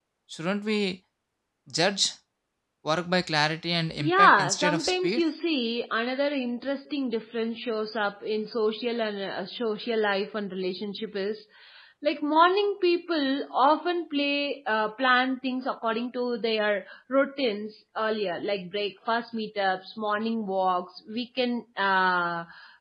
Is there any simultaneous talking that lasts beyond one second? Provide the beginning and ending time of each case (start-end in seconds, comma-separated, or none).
4.0-5.2